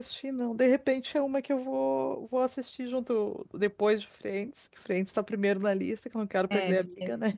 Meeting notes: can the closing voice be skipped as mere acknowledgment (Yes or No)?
No